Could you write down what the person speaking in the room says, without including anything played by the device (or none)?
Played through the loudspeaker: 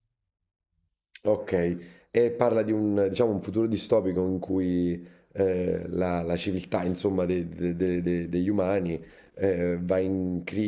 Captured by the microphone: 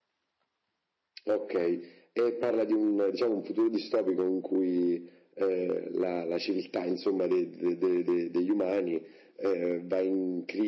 none